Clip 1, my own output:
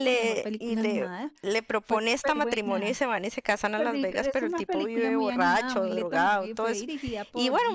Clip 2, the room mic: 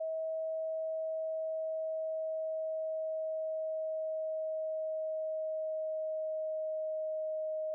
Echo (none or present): none